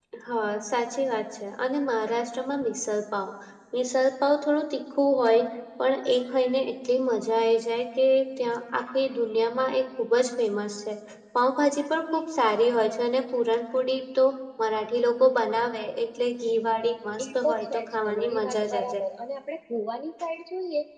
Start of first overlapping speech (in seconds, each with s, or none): 17.2 s